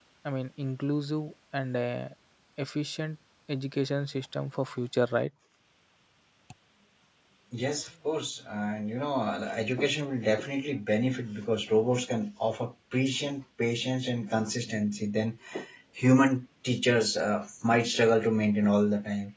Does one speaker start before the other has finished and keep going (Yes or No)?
No